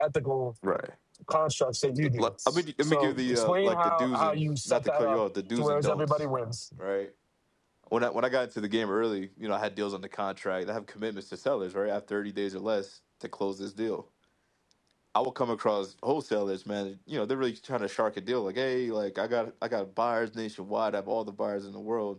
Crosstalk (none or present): present